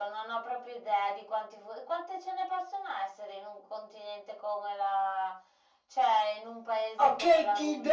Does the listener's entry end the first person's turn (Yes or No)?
Yes